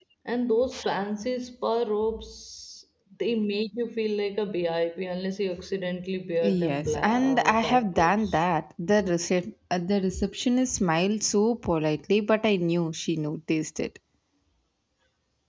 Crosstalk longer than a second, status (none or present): present